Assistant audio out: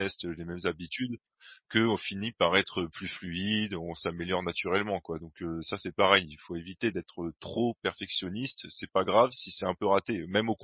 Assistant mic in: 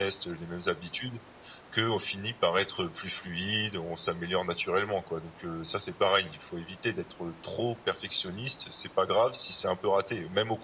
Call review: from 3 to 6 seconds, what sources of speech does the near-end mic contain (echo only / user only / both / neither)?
echo only